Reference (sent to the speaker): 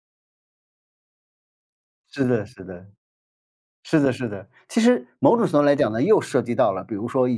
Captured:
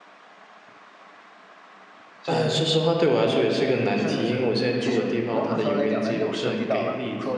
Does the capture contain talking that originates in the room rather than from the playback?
Yes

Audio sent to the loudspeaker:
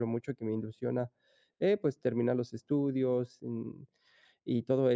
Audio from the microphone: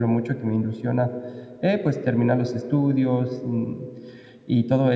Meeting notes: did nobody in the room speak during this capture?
Yes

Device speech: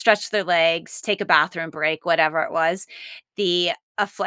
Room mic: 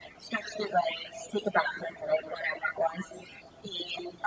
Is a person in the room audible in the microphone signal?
No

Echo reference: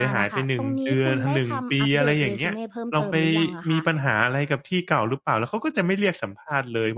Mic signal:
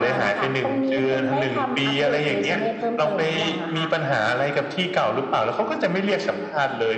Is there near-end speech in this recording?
No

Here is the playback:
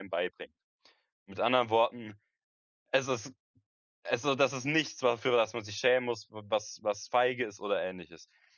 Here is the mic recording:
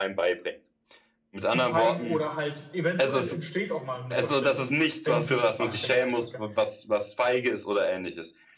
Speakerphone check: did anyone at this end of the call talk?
Yes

